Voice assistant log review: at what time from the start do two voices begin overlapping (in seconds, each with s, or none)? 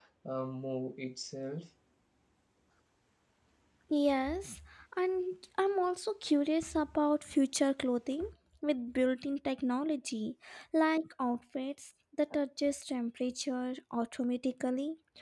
none